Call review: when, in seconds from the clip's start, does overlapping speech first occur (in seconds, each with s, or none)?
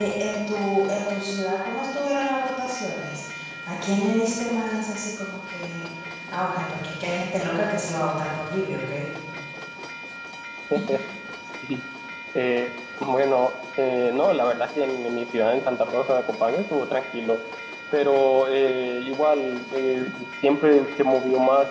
none